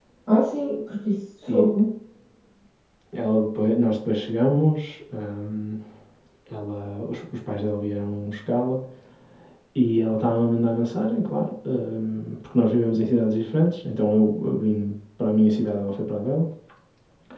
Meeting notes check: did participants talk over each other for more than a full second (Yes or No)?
No